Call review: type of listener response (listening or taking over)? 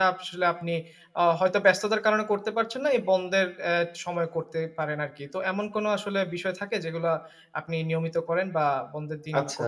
taking over